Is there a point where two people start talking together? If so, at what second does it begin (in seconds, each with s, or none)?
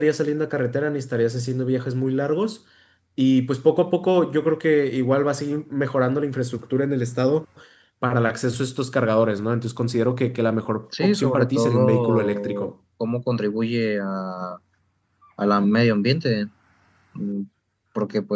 10.9 s